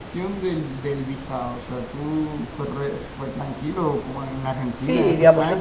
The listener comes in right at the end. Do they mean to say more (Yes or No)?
Yes